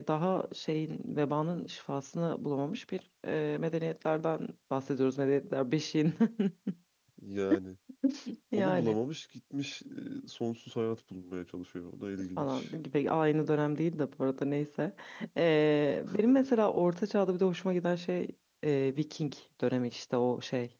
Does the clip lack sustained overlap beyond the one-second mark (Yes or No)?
Yes